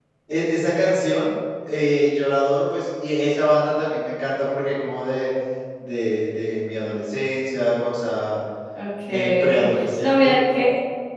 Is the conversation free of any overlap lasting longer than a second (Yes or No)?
No